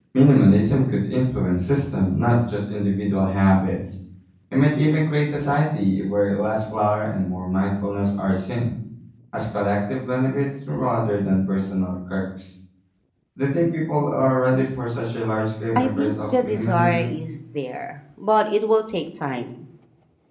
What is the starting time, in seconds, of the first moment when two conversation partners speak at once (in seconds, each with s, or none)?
15.8 s